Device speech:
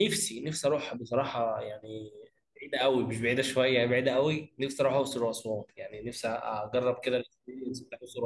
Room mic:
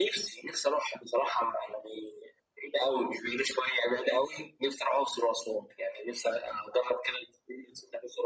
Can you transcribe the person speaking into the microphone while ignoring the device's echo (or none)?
none